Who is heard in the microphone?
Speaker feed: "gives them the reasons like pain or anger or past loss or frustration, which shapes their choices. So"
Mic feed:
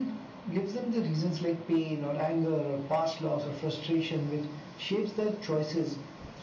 echo only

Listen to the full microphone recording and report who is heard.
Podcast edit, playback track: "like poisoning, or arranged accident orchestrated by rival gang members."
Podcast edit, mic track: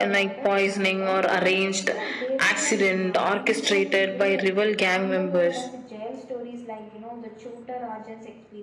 both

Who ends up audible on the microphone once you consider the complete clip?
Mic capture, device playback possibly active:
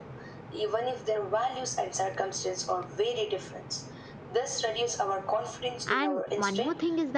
both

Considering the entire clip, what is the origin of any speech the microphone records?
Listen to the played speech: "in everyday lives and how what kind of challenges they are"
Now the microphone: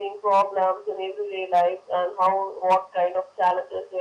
echo only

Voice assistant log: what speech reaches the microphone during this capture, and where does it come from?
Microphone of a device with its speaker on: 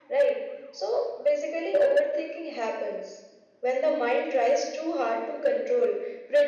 echo only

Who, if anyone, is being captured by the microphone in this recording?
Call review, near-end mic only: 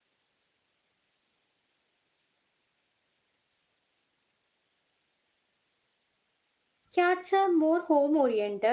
user only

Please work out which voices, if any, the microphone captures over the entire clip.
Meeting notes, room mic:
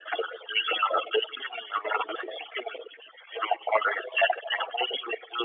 echo only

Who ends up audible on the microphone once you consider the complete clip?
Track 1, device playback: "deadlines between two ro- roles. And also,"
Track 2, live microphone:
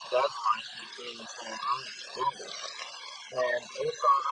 echo only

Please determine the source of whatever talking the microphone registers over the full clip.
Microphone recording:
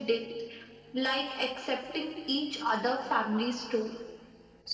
echo only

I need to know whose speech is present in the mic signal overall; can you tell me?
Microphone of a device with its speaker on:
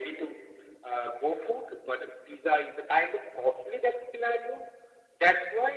echo only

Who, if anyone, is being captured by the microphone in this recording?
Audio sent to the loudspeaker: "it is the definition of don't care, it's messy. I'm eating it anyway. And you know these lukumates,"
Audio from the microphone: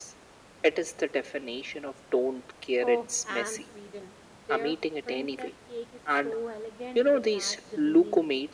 both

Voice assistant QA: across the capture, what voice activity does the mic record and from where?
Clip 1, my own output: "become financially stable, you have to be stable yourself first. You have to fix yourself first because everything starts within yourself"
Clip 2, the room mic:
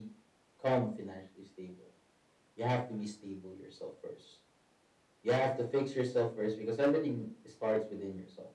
echo only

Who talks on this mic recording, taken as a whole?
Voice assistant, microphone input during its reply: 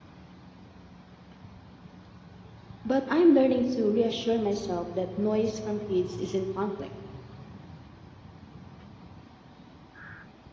user only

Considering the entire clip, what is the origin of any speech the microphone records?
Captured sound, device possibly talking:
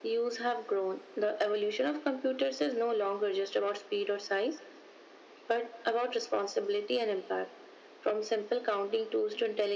echo only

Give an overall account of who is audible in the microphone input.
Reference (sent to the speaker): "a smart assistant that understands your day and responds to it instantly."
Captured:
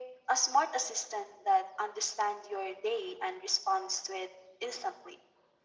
echo only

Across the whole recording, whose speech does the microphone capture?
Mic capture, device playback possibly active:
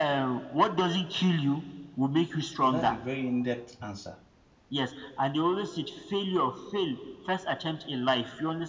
both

